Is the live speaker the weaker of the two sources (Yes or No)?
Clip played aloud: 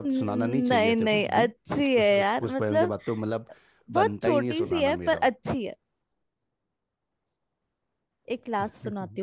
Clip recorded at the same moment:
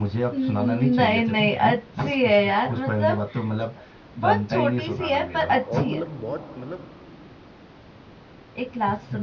Yes